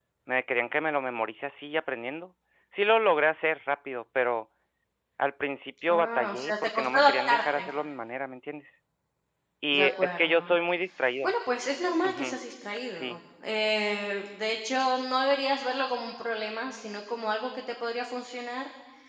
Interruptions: present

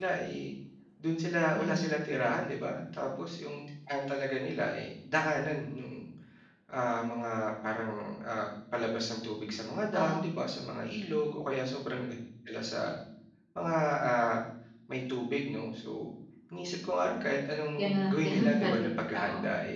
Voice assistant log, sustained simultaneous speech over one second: present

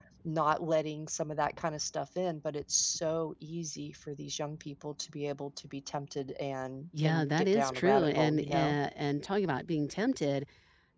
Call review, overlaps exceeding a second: present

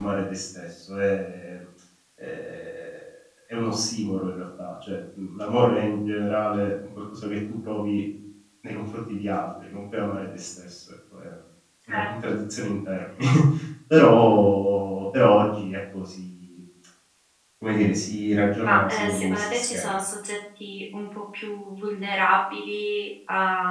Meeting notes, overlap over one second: present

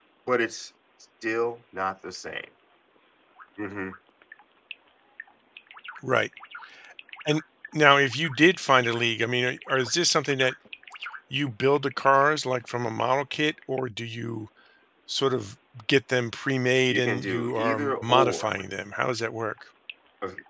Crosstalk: present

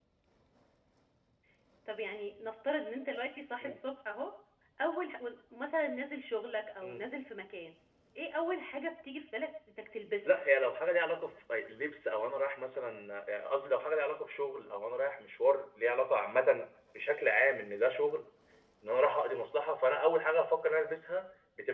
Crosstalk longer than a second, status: none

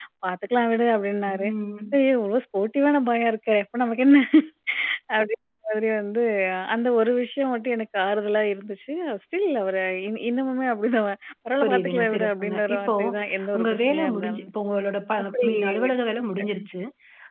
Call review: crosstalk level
present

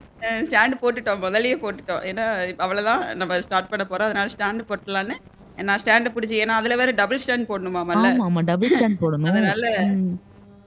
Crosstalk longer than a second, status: none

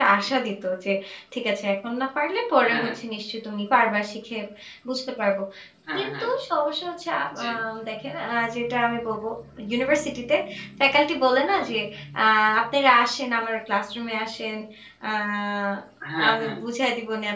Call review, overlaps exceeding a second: none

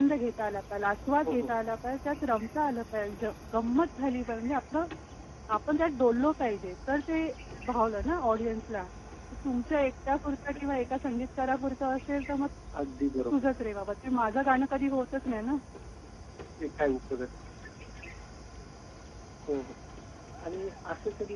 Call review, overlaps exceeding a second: none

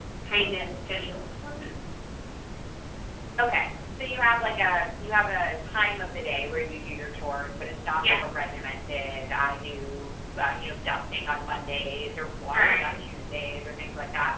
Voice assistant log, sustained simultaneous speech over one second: none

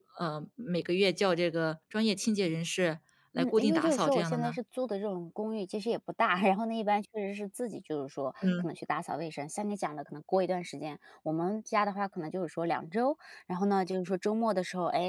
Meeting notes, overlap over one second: present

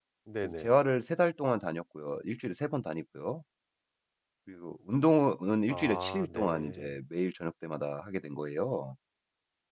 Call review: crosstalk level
present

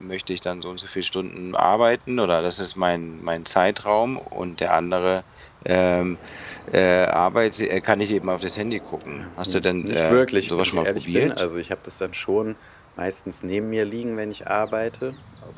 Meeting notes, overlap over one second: present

